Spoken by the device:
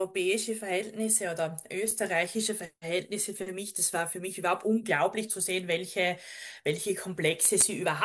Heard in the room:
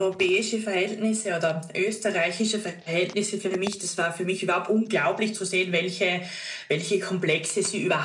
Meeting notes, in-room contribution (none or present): none